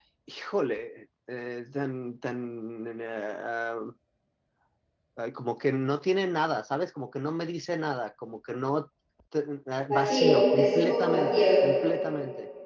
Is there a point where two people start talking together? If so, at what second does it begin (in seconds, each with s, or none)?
9.9 s